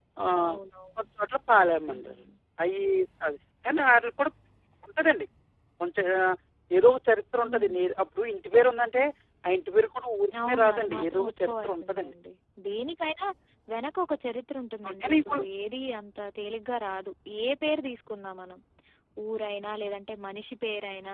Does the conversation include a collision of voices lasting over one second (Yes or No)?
Yes